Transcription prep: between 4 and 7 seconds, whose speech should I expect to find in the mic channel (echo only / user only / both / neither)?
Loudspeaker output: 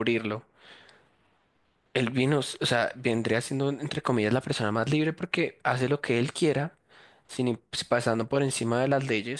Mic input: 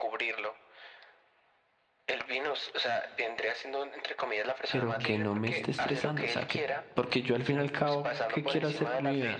both